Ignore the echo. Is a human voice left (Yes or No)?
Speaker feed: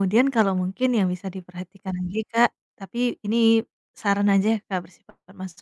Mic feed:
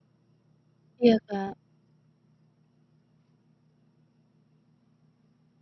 Yes